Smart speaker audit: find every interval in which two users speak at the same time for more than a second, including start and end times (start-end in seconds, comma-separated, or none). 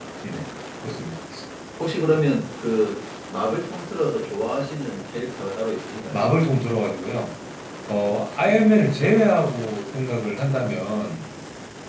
none